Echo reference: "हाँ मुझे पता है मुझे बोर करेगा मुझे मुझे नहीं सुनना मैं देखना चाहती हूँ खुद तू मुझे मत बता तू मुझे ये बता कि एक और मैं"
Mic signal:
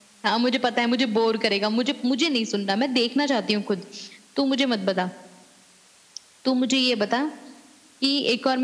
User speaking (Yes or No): No